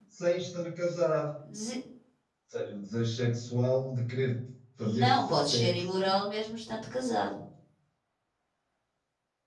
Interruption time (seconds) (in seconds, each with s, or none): 4.8 s